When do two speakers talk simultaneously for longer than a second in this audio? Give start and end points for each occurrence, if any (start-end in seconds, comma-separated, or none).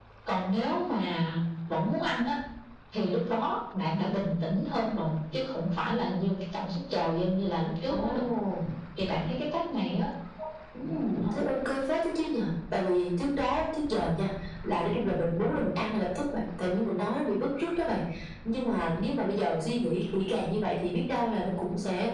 none